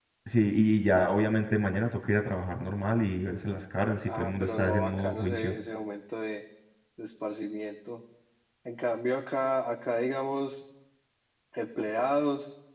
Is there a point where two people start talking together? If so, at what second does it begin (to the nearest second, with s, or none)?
4 s